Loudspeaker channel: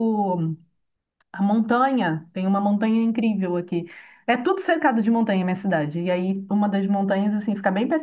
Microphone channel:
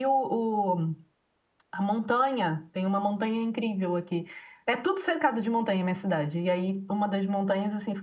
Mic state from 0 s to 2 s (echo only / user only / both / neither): echo only